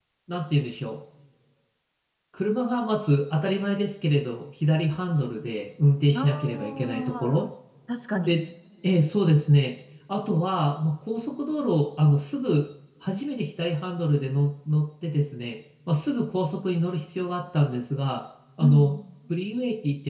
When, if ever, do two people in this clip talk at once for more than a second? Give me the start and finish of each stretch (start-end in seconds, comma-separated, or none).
6.2-7.5